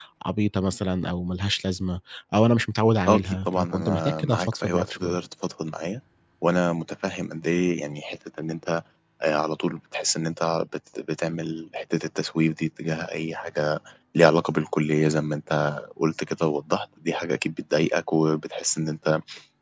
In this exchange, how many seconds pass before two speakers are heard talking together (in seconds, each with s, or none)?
3.1 s